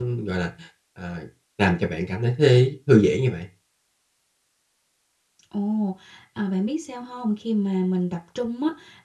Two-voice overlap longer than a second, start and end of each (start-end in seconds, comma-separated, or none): none